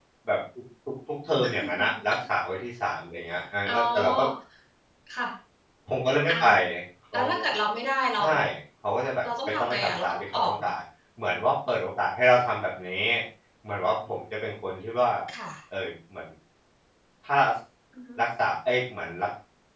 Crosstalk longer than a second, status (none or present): present